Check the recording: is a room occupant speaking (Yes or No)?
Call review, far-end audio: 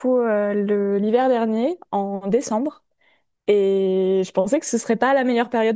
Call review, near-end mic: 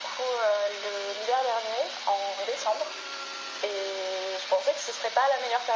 No